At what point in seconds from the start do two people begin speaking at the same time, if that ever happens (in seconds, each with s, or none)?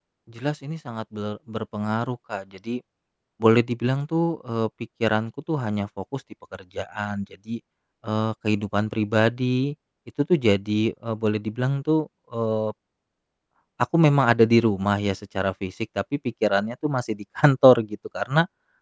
none